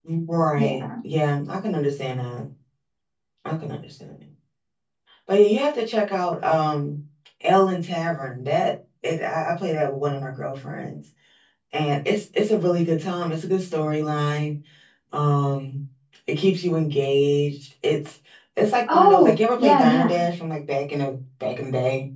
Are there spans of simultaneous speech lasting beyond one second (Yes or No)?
Yes